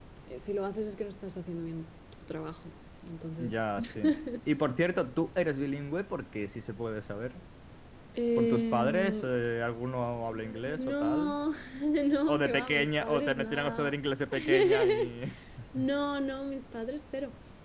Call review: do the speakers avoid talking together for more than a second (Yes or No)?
No